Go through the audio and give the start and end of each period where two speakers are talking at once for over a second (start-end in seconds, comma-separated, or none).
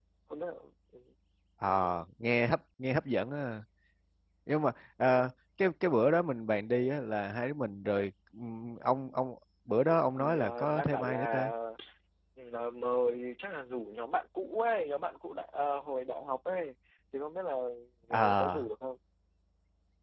10.2-11.5